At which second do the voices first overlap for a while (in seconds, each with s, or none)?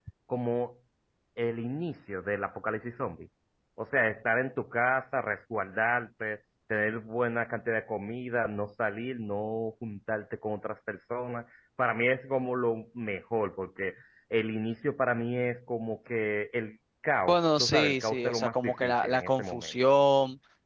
17.3 s